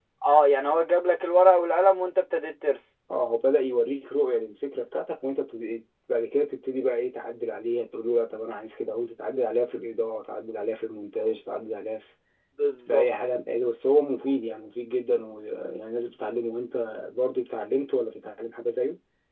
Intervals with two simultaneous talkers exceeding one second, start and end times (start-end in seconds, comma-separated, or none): none